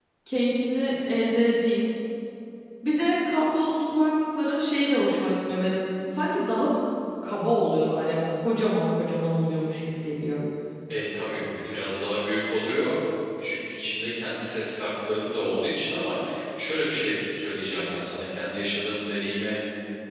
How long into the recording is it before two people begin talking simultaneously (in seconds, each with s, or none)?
none